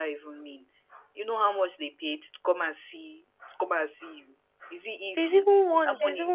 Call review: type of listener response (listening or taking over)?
taking over